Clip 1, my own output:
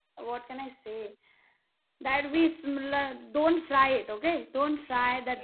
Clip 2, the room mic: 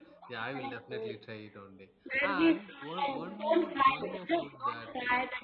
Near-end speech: present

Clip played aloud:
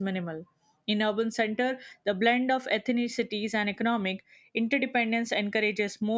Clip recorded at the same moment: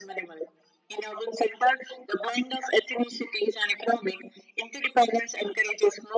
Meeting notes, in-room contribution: none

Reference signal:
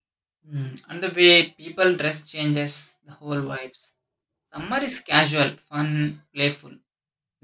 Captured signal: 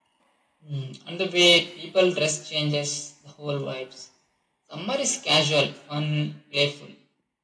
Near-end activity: none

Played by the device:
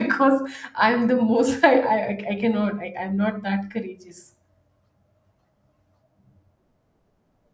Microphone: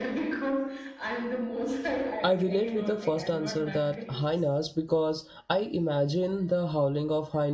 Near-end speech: present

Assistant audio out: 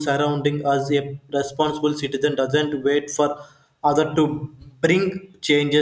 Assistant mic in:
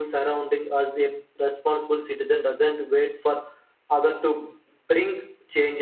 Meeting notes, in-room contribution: none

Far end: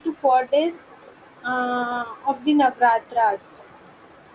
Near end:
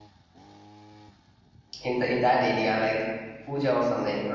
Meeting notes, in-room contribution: present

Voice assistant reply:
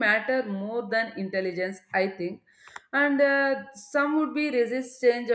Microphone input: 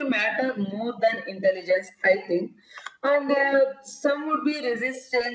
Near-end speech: none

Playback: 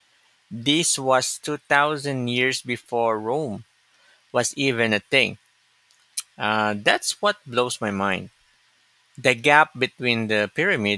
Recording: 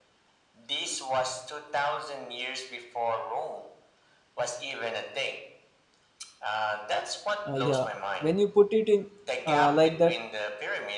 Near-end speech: present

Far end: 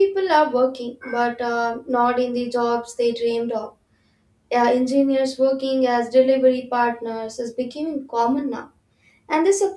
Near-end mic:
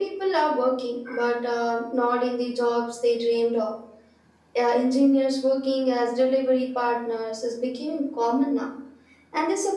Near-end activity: none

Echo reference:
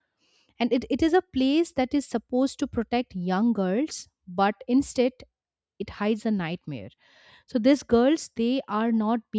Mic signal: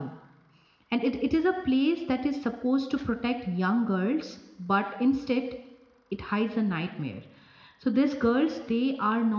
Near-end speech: none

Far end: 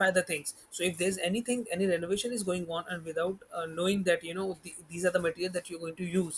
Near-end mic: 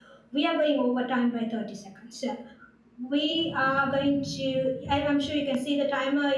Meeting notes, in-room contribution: present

